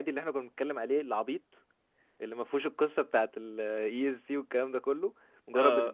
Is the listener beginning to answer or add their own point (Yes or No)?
Yes